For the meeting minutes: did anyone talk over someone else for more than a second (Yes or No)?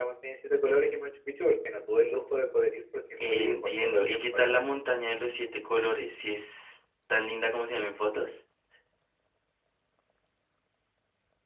Yes